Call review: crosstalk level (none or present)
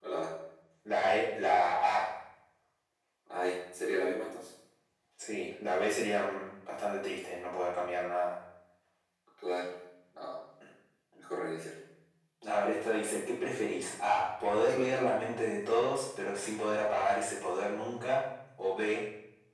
none